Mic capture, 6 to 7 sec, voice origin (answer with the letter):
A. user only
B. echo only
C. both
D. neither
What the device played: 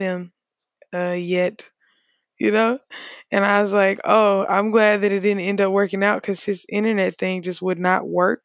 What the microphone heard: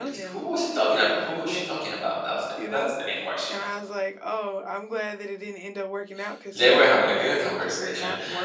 C